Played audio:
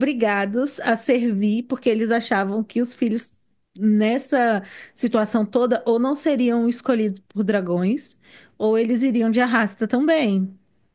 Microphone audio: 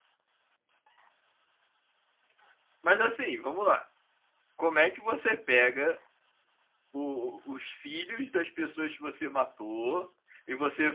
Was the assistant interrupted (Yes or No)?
Yes